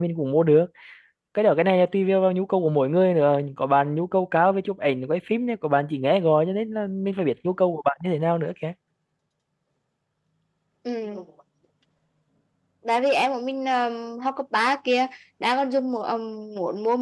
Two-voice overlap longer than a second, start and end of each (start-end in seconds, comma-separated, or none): none